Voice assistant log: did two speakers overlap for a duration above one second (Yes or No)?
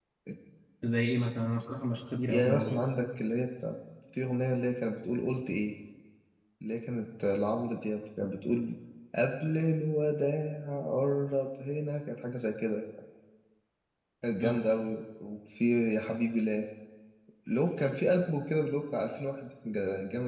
No